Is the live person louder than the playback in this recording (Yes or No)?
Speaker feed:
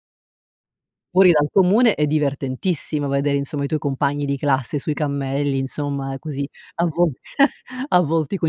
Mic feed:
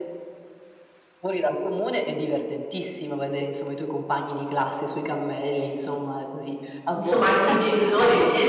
Yes